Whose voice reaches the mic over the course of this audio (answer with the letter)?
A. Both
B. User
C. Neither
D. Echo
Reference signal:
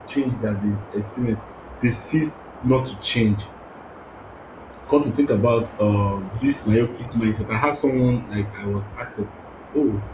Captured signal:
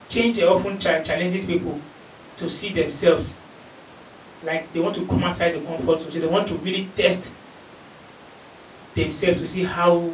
B